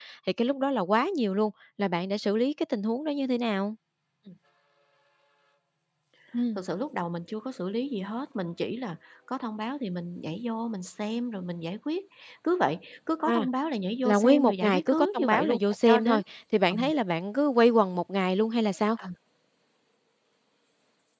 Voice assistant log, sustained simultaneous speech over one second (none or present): present